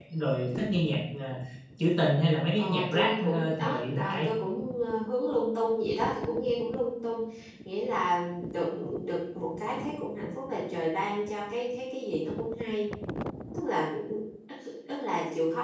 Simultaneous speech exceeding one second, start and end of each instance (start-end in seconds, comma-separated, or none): 2.6-4.3